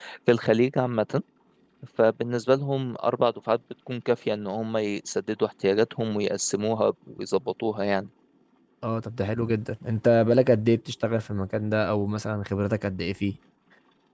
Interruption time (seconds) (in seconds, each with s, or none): none